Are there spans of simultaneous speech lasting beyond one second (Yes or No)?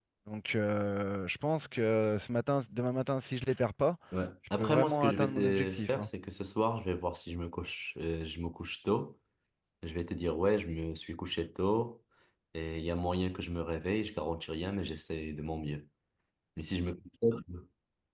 Yes